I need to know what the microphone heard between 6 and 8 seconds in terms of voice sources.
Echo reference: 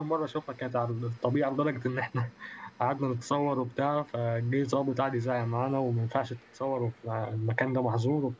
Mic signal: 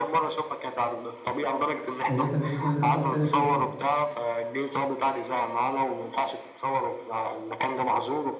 echo only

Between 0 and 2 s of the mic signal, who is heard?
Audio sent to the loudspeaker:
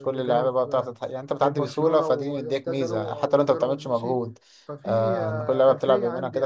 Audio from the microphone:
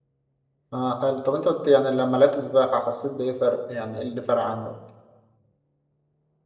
user only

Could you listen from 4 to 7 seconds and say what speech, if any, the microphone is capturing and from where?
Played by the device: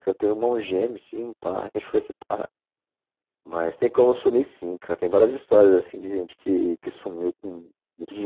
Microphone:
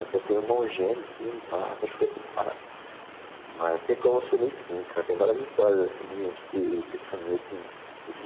echo only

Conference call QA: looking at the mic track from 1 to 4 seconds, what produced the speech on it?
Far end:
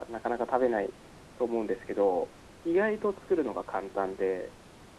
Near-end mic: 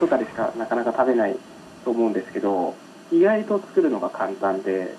echo only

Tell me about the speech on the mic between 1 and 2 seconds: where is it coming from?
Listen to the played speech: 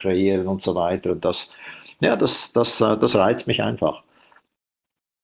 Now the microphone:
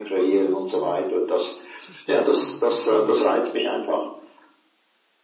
both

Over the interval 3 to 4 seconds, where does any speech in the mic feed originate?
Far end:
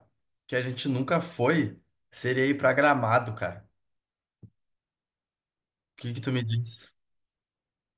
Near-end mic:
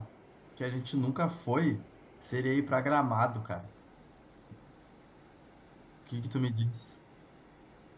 echo only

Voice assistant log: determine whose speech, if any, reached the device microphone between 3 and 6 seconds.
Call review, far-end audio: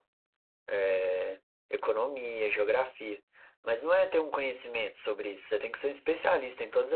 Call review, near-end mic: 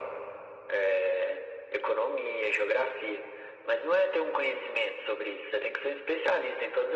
echo only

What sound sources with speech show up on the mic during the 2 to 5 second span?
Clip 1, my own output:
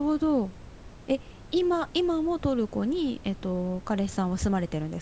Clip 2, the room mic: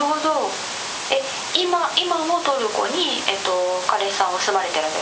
echo only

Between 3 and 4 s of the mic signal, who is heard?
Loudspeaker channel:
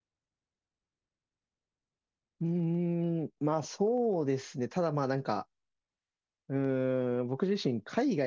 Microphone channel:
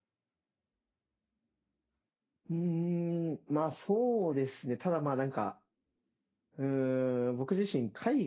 echo only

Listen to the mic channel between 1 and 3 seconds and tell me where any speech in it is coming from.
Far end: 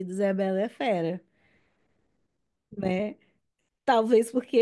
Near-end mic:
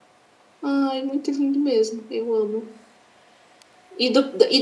user only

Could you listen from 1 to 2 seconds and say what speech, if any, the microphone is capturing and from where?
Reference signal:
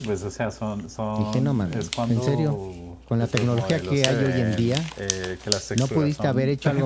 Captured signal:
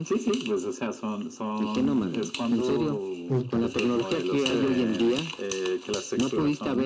echo only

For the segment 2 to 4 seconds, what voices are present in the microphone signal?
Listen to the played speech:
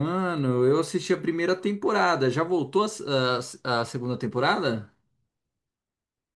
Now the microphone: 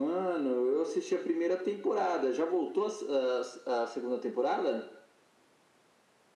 echo only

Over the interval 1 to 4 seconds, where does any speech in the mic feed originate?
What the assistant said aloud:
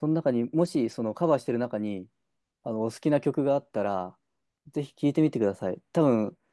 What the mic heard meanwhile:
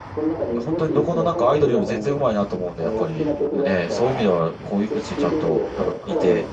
both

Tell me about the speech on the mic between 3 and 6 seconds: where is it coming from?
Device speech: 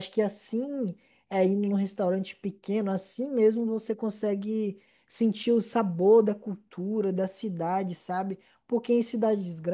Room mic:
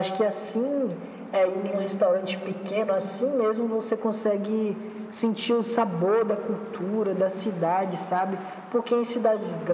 echo only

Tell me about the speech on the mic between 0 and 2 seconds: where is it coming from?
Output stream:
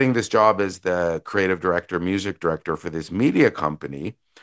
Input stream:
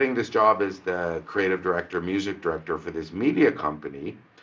echo only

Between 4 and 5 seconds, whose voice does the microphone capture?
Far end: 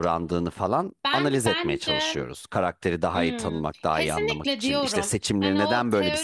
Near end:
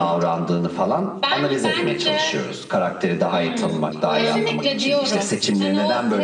both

